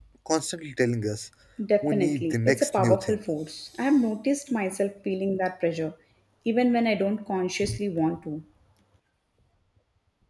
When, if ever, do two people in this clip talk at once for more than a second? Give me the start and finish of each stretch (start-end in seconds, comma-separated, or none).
1.8-3.2